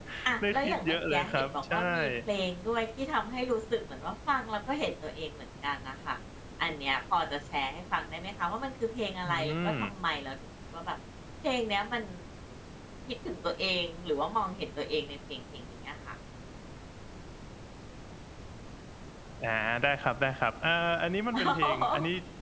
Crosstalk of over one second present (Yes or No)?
Yes